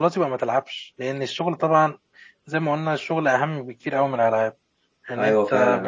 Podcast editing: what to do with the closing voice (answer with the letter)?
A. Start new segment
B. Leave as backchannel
A